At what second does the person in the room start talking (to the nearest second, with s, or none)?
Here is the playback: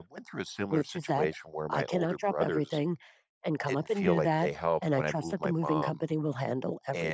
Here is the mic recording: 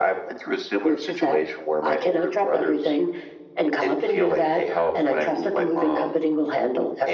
none